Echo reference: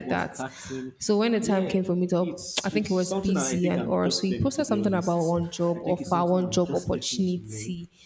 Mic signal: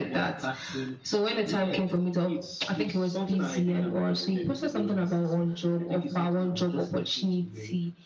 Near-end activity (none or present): none